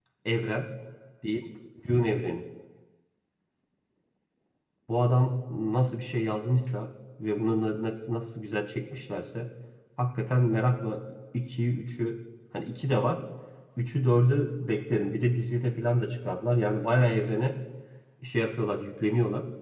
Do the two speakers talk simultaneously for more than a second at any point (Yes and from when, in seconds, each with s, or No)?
No